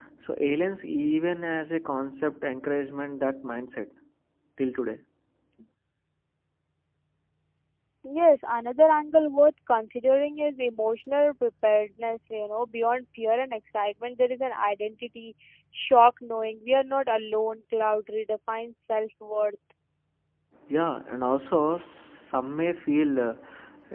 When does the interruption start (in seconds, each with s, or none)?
none